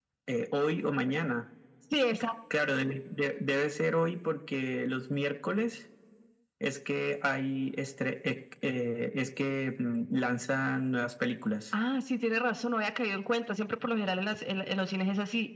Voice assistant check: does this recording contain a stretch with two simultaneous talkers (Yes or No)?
No